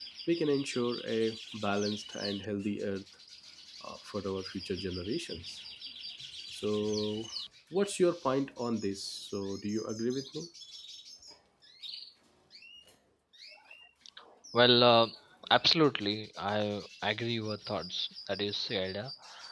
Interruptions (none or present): none